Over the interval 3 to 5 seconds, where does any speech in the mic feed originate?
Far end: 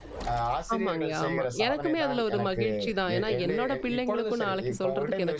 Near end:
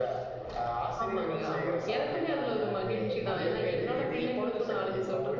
both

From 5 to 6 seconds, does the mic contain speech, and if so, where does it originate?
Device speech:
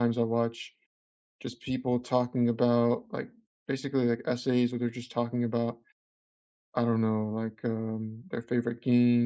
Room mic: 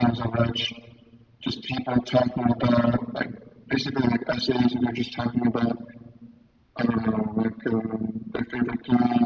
echo only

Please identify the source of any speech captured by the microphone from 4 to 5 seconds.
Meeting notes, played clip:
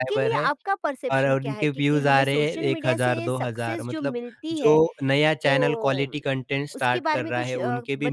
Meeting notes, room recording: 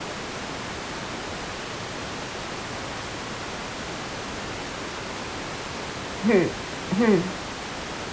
neither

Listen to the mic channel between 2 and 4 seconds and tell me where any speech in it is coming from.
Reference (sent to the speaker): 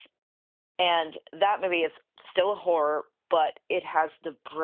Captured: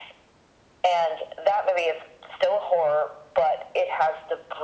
echo only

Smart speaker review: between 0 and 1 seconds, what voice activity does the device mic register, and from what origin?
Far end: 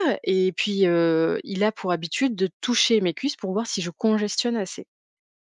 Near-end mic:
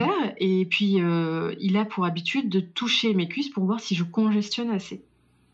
echo only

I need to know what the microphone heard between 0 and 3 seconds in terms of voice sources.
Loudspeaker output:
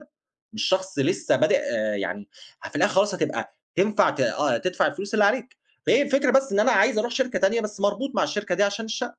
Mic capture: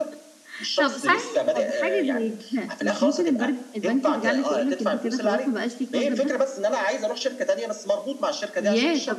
both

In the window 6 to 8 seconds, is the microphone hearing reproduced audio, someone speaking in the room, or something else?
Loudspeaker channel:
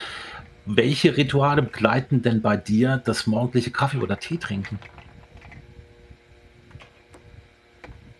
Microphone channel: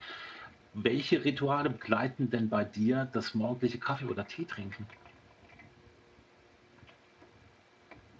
neither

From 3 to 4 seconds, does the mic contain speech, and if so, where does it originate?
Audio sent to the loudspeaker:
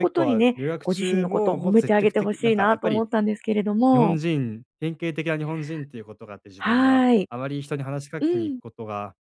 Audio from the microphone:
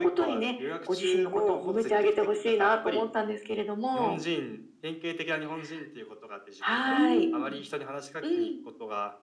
echo only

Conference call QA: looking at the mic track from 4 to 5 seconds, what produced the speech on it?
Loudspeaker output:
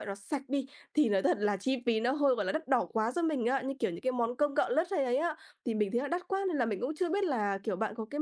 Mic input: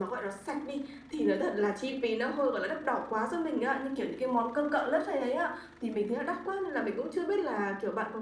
echo only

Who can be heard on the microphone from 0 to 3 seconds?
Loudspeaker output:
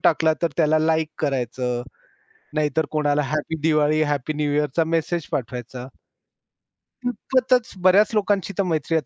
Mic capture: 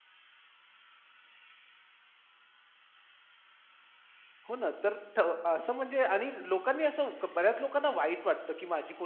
neither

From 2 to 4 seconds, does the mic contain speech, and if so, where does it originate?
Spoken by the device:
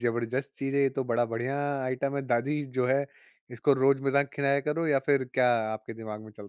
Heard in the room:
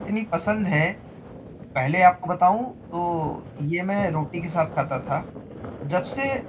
user only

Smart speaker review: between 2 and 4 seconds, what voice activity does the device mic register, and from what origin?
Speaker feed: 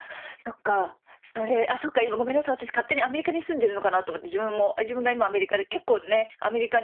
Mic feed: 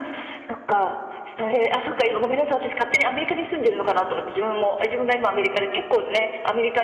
echo only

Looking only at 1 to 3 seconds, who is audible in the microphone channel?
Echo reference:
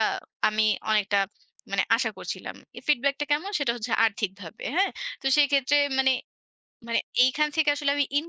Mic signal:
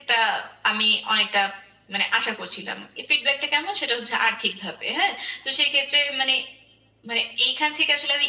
echo only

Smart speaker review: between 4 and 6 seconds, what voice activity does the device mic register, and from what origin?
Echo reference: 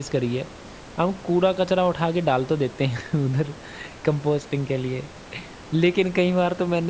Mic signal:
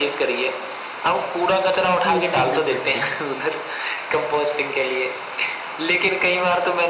echo only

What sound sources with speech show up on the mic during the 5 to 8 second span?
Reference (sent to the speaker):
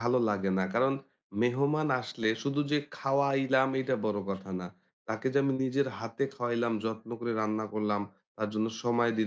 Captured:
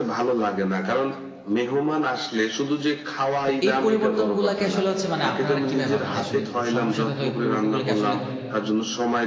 both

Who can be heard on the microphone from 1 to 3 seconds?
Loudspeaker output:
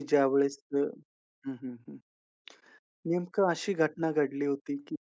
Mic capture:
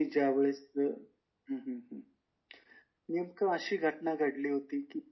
echo only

